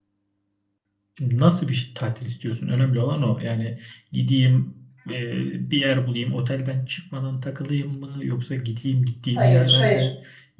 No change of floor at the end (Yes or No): Yes